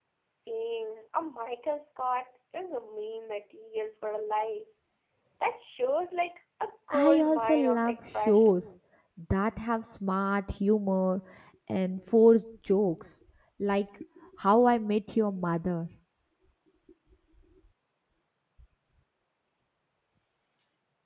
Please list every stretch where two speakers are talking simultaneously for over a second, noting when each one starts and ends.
6.9-8.6

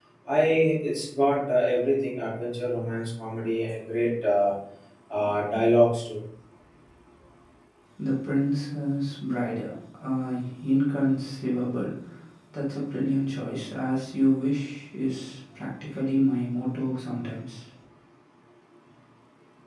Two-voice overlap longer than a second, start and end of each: none

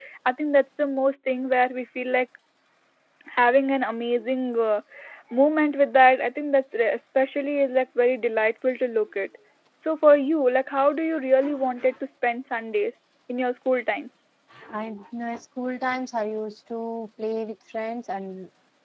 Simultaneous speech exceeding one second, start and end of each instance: none

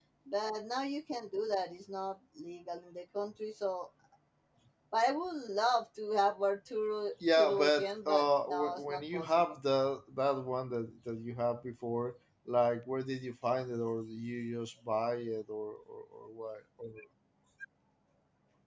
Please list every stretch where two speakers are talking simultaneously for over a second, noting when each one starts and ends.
7.3-9.6

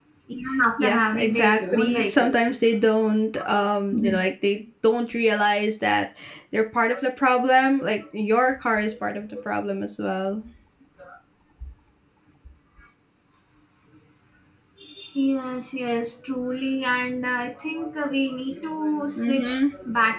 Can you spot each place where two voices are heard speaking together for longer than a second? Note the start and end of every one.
0.8-2.3

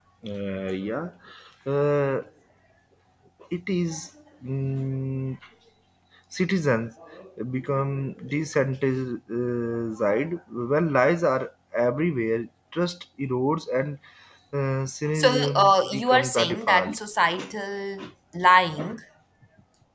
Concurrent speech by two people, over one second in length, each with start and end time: 15.2-17.0

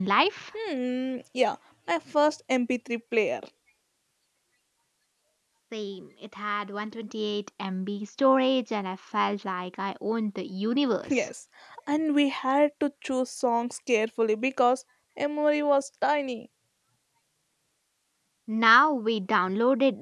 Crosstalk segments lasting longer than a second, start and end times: none

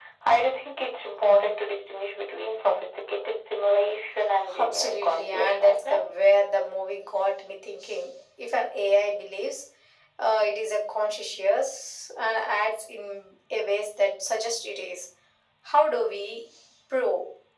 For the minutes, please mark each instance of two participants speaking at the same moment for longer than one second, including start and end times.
4.6-6.2

